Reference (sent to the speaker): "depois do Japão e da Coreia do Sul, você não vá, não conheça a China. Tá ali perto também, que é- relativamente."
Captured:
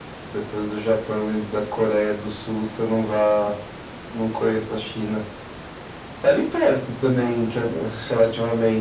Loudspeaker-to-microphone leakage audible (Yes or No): Yes